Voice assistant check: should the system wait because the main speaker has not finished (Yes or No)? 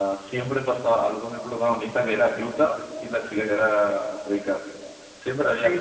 No